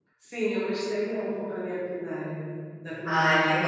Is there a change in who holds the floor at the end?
Yes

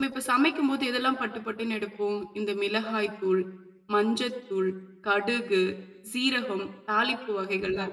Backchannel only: No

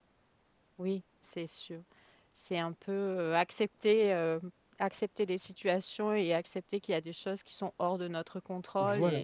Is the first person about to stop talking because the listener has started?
Yes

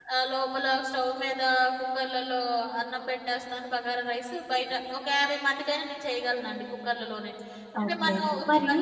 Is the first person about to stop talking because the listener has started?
Yes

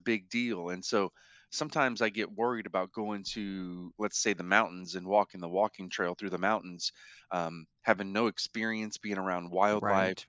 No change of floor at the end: Yes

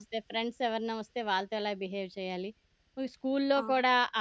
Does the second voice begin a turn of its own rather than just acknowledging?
No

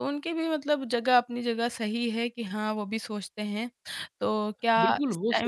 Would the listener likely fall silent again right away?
No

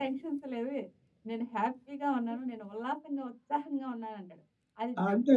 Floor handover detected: No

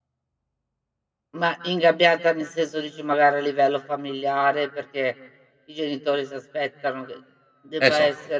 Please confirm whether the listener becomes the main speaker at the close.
No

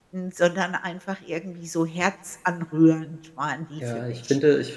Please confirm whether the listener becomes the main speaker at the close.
Yes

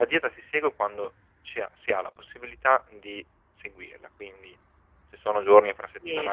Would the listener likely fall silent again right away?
No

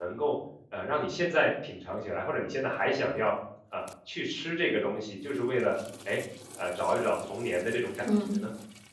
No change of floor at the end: No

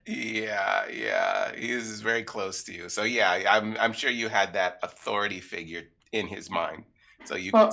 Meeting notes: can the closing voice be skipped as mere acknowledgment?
Yes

